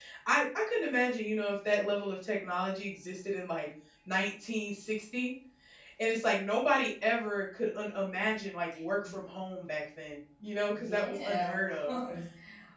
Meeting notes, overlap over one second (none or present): present